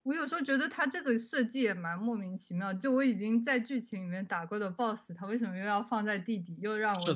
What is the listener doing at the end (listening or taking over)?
taking over